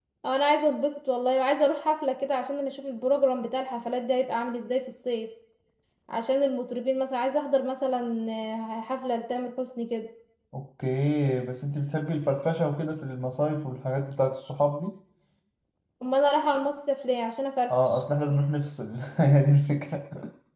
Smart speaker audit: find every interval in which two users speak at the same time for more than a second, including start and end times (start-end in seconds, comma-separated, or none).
none